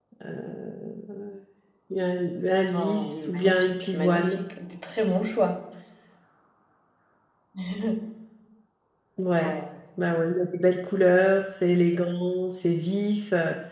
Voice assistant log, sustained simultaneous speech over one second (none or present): present